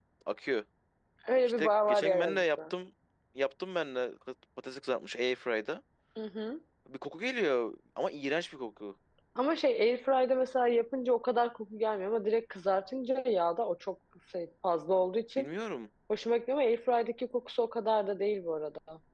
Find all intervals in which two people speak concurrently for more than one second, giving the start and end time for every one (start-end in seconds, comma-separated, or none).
1.4-2.7